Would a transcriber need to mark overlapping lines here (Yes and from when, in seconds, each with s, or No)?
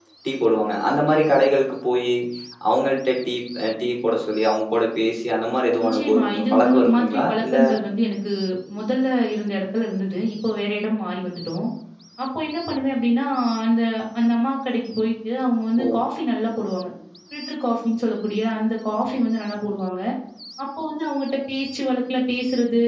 Yes, from 5.8 s